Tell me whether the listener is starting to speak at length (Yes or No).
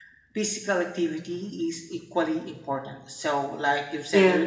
No